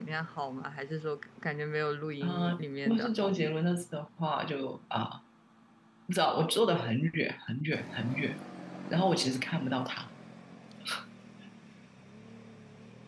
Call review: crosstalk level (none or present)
present